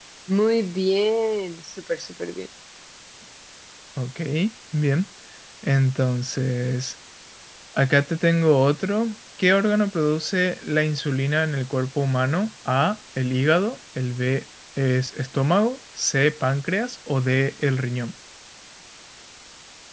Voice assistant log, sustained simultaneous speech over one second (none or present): none